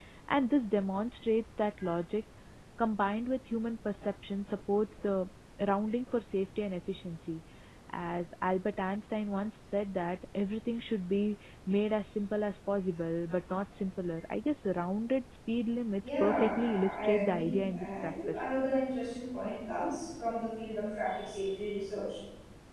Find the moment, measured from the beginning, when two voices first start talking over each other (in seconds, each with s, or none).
16.0 s